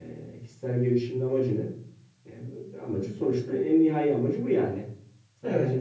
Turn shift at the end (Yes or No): No